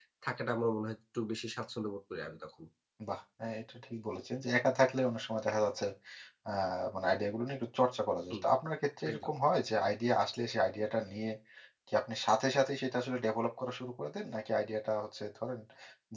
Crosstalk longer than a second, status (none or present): none